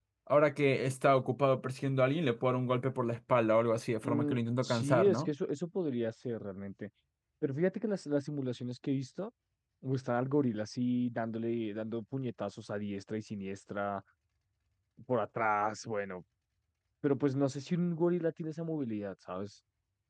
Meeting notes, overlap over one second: present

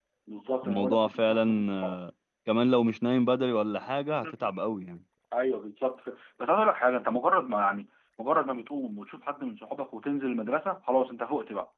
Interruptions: present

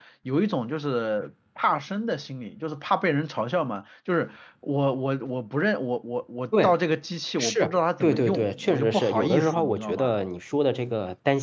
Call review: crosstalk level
present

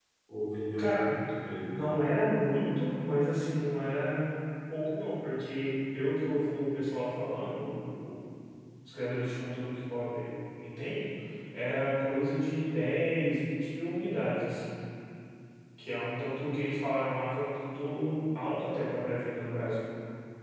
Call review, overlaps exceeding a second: none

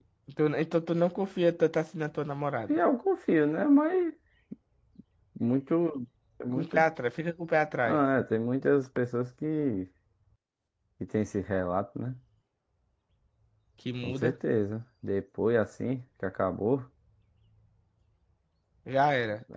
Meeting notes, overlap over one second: none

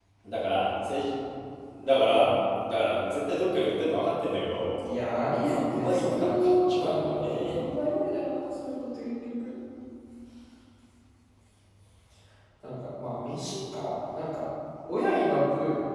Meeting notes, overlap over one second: present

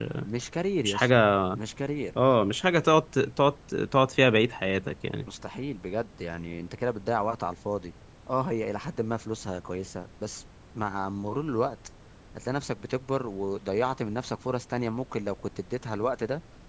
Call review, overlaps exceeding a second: none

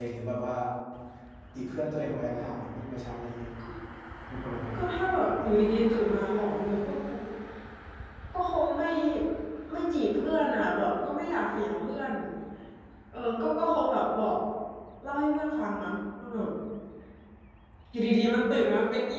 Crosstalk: none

